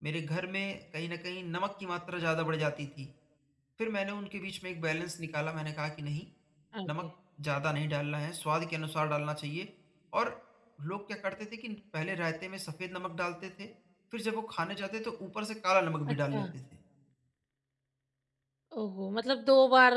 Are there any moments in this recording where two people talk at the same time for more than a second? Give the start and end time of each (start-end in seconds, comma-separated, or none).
none